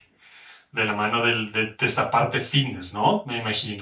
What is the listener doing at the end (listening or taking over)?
taking over